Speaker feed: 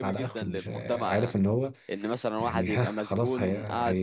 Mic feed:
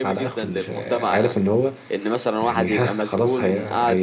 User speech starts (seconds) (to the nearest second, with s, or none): none